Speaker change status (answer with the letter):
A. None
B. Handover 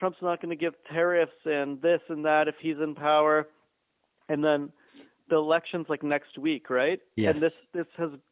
A